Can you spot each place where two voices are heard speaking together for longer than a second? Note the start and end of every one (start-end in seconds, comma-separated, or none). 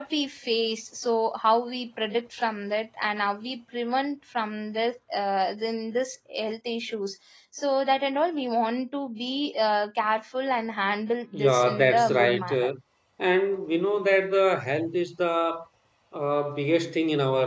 11.3-12.7